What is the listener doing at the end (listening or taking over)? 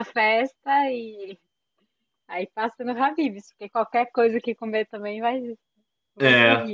taking over